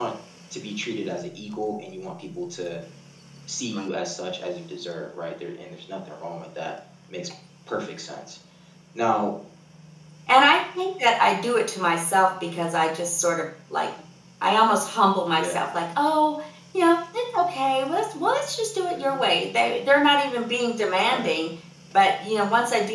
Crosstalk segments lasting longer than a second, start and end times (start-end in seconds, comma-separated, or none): none